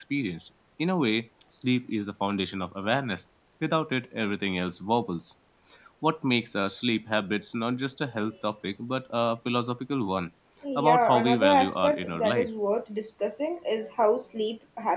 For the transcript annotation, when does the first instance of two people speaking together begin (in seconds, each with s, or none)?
10.8 s